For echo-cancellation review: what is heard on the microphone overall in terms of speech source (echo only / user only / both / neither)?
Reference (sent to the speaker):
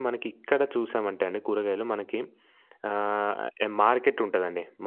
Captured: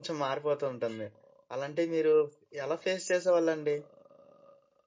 user only